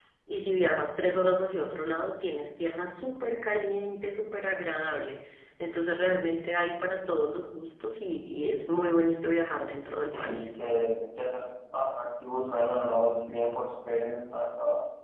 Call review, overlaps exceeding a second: none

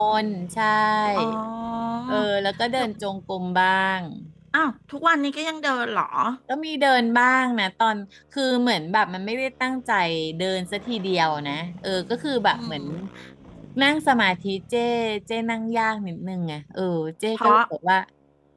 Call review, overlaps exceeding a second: none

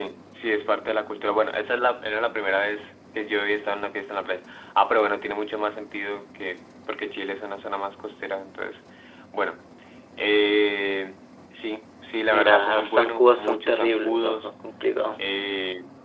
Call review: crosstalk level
present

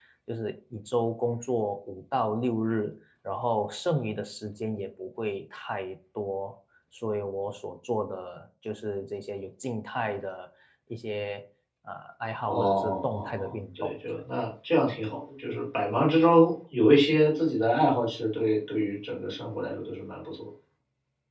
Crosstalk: present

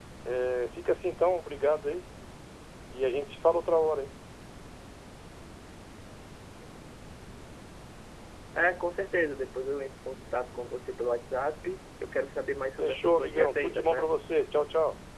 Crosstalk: present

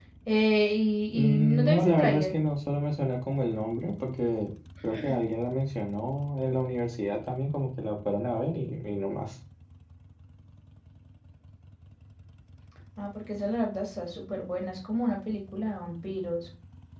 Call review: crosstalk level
present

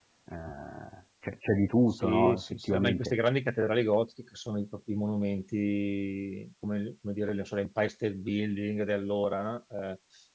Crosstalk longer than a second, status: present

